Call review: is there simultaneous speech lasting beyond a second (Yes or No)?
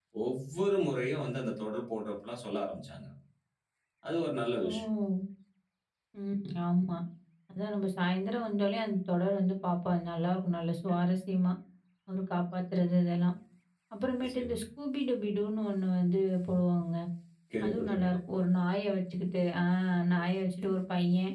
No